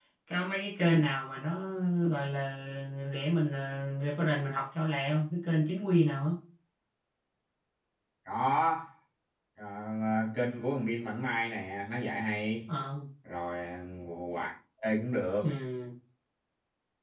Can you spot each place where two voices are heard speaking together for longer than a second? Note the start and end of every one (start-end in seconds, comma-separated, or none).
none